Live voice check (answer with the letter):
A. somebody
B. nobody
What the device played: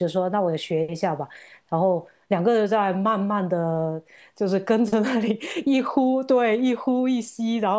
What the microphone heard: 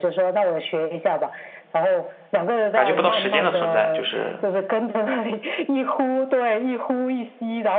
A